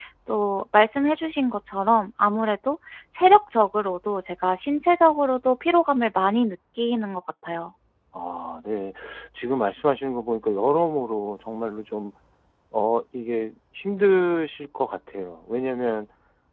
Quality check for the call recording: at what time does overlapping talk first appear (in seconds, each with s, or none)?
none